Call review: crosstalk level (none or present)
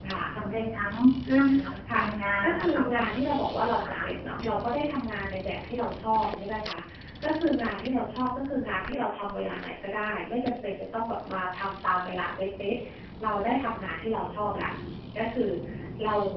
present